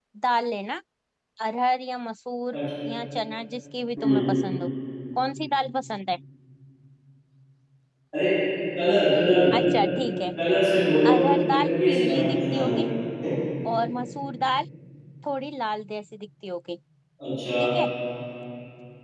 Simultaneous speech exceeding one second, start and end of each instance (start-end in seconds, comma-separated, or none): 11.1-12.9